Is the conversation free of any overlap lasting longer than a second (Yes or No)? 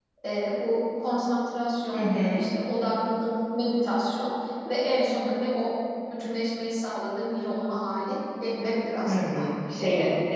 Yes